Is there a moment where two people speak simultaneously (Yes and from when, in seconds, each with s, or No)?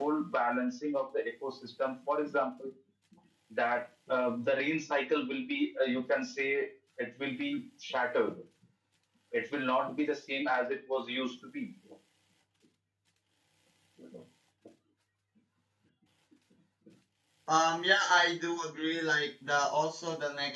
No